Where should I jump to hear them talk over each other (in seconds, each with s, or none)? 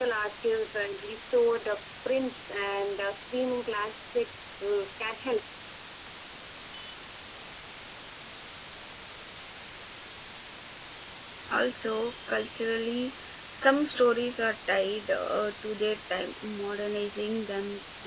none